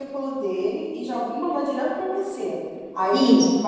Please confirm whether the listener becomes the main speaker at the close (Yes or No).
No